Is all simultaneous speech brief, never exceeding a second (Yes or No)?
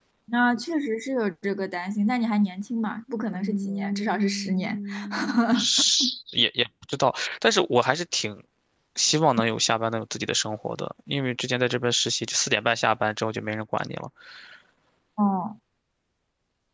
No